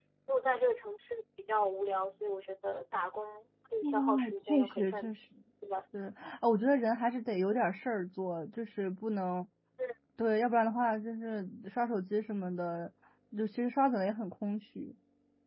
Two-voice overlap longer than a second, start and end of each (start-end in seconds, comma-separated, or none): 3.8-5.1